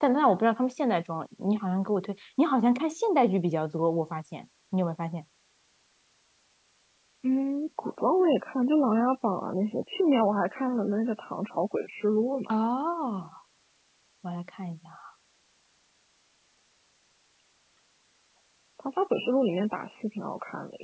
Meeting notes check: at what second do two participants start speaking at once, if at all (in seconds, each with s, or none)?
none